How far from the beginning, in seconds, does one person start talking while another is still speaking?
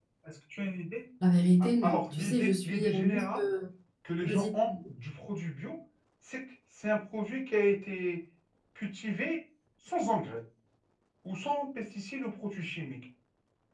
2 s

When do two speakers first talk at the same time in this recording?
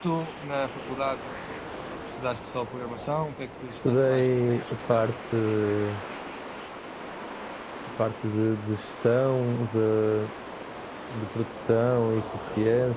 4 s

